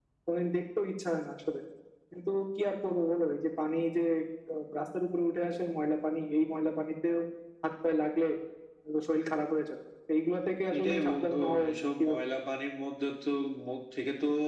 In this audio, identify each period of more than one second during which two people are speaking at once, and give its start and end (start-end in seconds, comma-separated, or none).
10.8-12.2